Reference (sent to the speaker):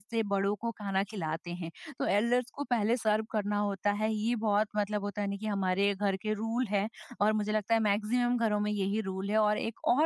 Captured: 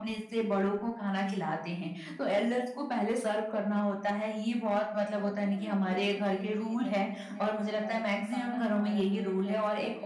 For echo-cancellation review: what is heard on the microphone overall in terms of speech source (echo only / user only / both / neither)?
both